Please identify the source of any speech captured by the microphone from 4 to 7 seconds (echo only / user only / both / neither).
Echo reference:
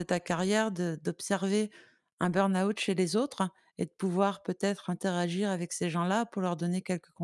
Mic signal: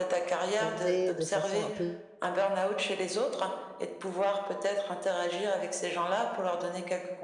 echo only